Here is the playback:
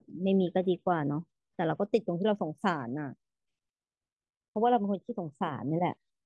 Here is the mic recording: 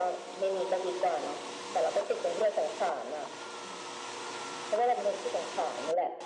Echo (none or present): present